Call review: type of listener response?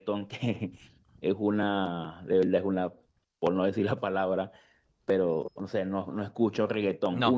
listening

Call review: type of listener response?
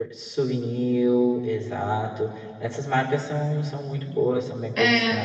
taking over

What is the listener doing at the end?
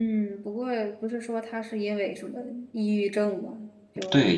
taking over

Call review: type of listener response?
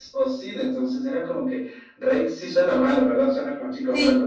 taking over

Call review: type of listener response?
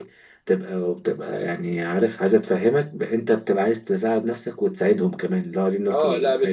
taking over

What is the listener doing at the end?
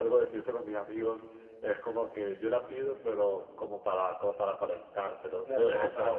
taking over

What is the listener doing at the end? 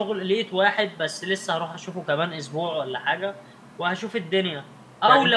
listening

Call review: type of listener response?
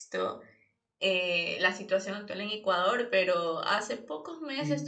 listening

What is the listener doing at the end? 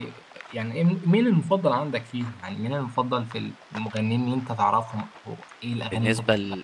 taking over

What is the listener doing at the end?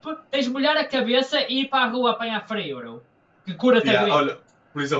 taking over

